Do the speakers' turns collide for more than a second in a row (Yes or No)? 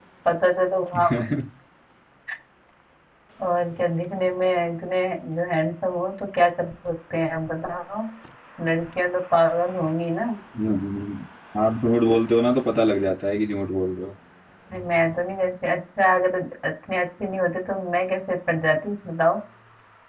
No